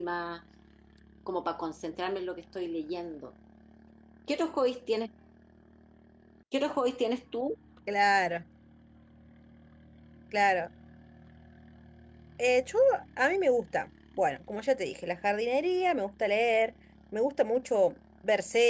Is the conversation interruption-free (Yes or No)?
Yes